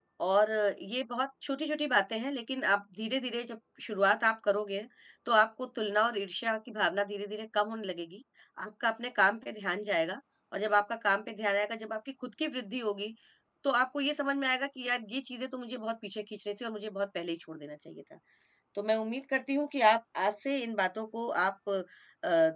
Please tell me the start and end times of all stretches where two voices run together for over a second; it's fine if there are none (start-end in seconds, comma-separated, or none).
none